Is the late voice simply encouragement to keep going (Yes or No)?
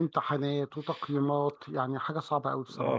No